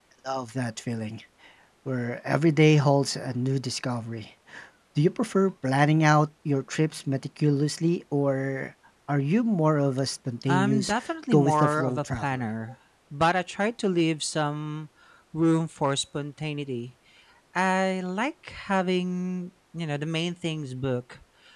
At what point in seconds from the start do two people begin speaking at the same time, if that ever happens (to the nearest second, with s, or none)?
10 s